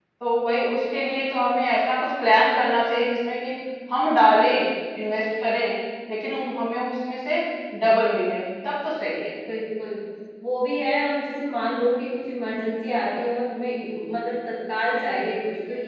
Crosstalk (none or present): none